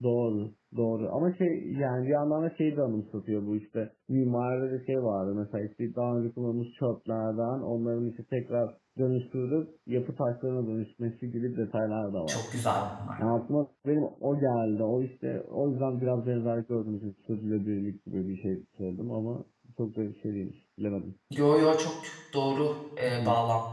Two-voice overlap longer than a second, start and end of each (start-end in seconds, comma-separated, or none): none